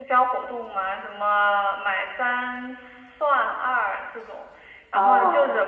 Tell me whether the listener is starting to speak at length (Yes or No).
No